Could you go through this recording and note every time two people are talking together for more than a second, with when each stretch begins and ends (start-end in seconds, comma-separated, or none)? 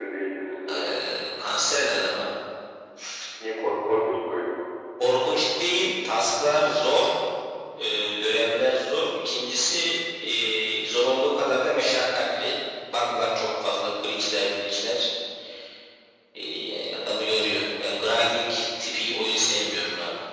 none